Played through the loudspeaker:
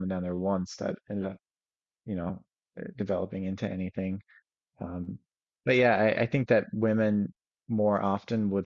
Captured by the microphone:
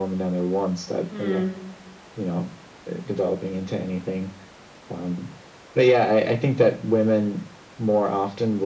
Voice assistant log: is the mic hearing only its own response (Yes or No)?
No